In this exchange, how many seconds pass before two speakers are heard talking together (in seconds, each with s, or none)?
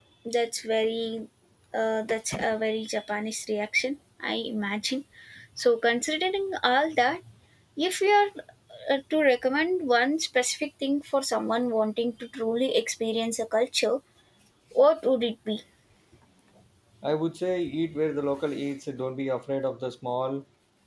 none